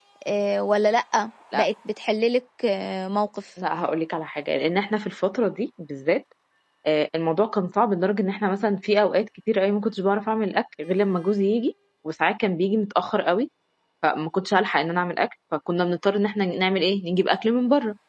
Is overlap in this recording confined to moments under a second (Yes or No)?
Yes